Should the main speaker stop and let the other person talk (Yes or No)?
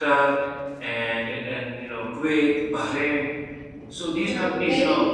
Yes